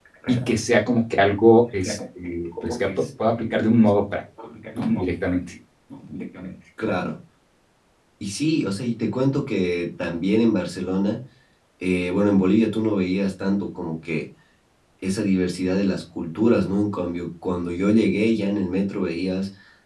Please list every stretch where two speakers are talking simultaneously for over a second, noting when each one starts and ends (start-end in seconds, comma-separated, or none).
none